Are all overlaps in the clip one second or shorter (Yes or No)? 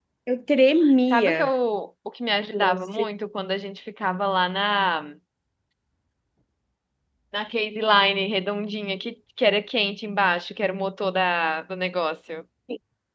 Yes